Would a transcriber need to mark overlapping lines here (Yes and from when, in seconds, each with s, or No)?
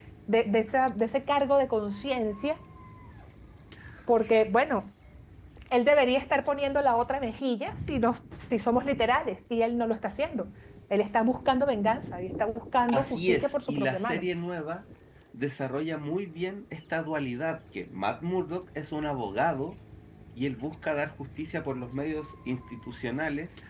Yes, from 12.9 s